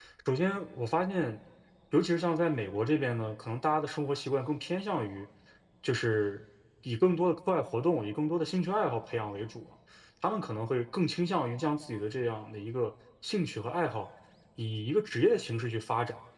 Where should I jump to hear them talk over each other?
none

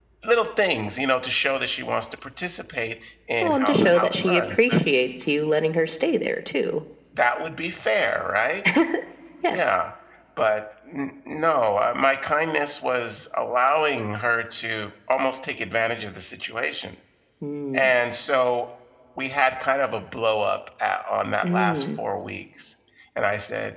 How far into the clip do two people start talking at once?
3.4 s

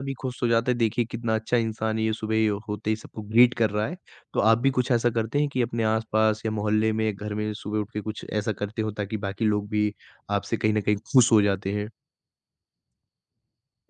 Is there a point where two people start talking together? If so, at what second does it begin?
none

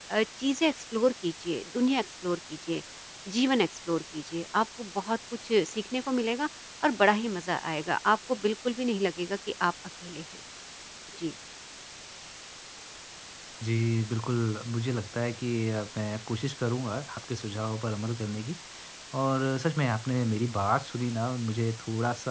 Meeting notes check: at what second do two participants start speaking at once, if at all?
none

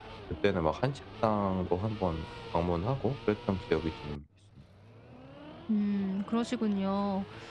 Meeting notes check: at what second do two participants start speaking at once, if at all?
none

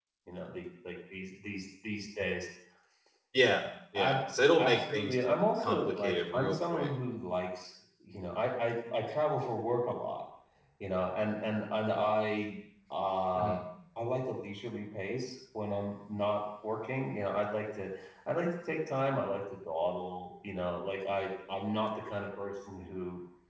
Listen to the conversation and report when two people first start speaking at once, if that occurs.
3.9 s

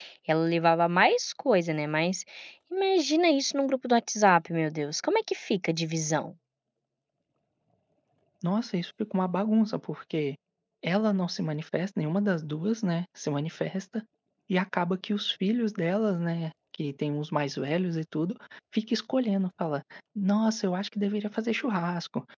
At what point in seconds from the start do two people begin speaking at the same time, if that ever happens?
none

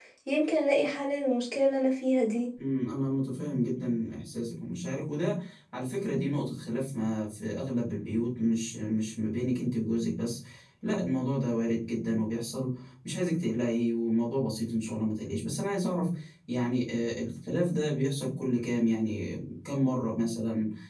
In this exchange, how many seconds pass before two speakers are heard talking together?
none

